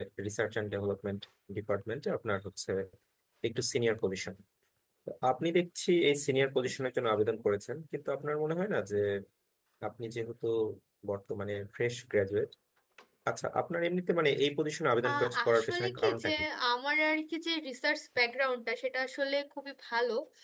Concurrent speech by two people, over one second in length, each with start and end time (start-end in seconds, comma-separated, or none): 15.1-16.3